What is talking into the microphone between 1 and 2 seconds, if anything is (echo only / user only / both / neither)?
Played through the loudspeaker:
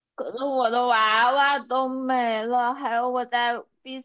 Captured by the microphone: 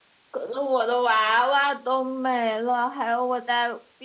echo only